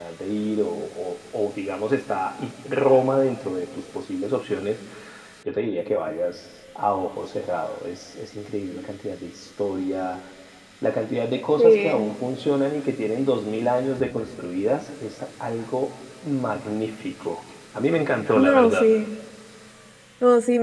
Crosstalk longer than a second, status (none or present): none